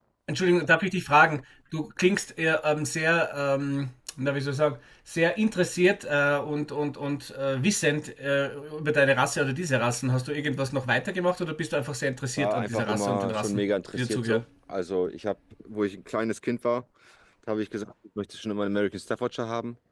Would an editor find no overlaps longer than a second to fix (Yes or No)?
No